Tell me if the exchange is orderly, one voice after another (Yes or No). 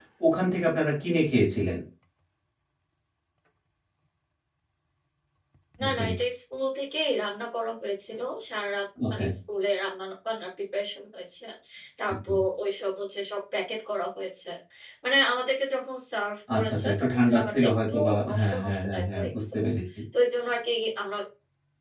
No